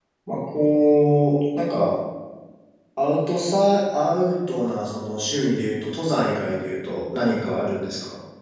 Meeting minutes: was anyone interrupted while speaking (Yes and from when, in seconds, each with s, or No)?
No